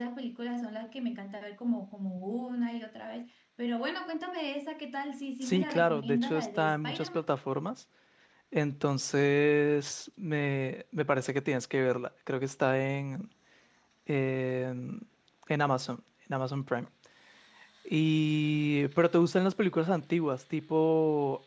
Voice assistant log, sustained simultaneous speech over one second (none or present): present